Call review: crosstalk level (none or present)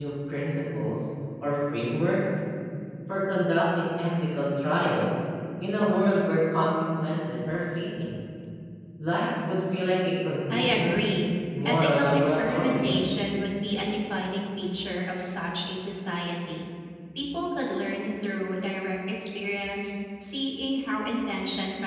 present